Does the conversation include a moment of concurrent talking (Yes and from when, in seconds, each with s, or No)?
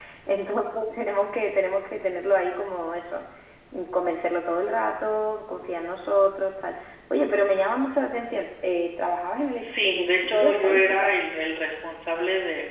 Yes, from 9.6 s